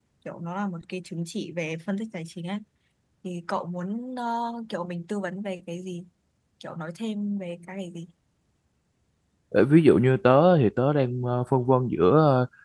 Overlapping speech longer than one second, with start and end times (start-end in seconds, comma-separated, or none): none